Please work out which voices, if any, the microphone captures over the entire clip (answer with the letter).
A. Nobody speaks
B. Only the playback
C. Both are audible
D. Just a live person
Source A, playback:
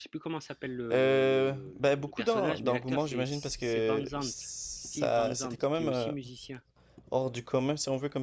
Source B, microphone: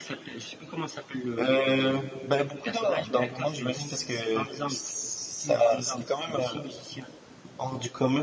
B